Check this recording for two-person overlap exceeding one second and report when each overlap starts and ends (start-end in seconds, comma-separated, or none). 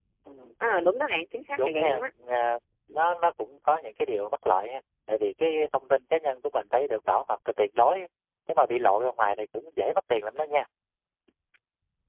none